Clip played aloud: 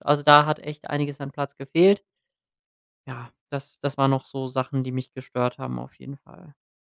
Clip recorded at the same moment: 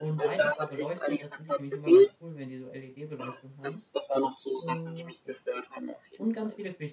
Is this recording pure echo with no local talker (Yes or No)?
No